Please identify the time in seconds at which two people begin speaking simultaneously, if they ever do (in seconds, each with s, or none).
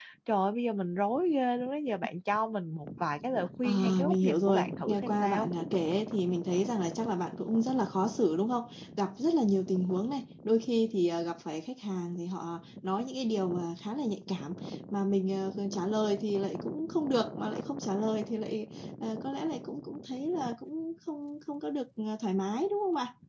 3.6 s